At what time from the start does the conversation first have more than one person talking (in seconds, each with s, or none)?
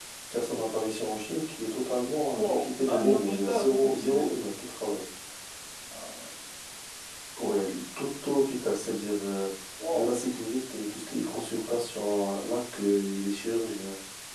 2.4 s